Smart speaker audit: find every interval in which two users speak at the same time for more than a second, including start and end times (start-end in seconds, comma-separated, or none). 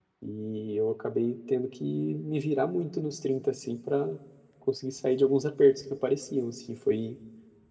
none